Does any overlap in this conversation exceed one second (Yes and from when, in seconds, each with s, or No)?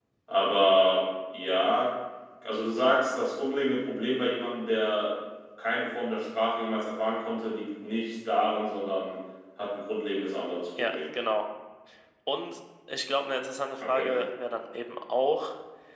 No